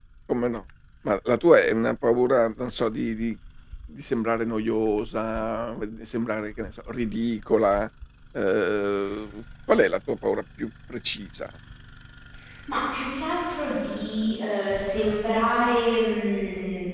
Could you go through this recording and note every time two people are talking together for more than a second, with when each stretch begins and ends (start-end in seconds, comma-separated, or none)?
none